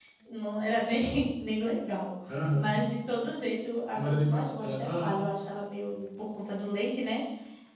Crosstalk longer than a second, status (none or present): present